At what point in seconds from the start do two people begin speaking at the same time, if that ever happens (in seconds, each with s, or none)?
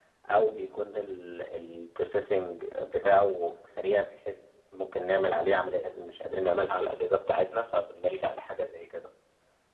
none